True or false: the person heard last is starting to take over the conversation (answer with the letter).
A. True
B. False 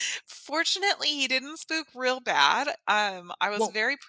B